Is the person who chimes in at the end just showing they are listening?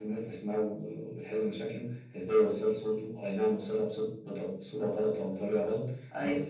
Yes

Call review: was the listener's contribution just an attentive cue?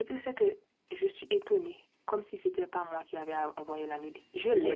No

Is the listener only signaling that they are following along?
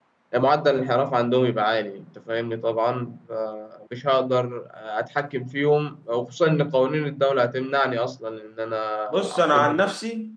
No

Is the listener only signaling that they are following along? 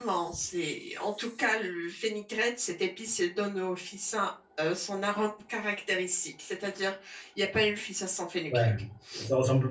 No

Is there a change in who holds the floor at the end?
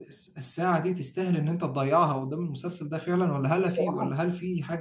No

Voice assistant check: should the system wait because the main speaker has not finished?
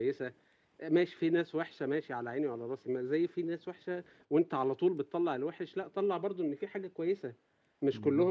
Yes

